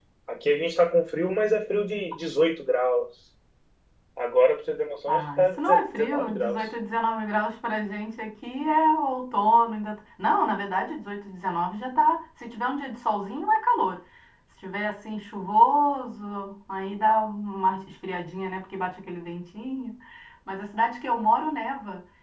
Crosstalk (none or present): present